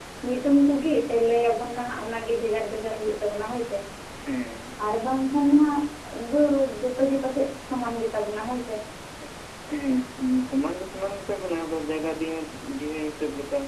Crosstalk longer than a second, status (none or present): none